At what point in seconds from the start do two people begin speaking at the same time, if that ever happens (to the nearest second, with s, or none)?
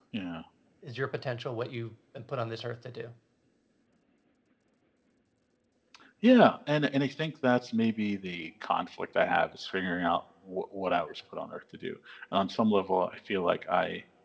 none